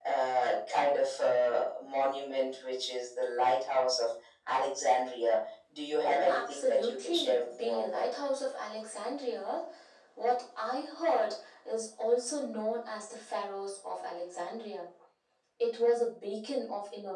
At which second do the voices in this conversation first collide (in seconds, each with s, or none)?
6.0 s